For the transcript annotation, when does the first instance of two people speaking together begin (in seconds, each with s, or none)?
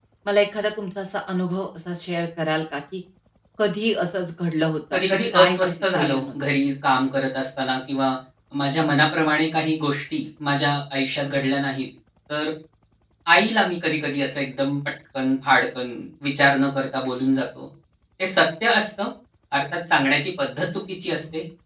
4.9 s